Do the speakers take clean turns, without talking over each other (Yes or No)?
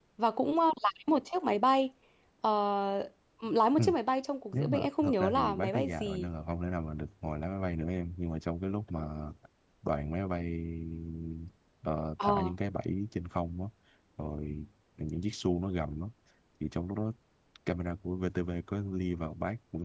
No